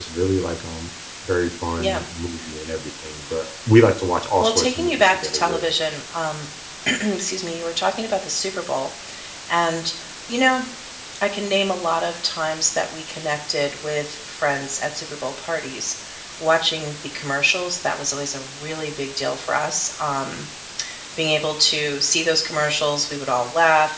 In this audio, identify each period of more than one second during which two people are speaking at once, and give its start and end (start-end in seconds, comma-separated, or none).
4.4-5.7